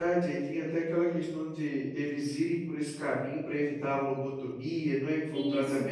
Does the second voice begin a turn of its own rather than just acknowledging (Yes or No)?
Yes